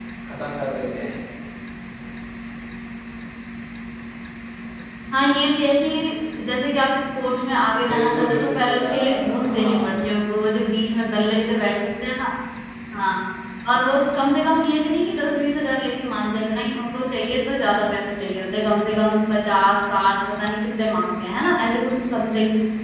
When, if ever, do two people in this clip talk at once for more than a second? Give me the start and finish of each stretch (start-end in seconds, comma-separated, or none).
7.9-9.7